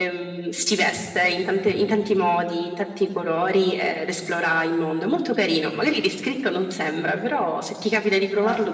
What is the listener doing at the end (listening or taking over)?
taking over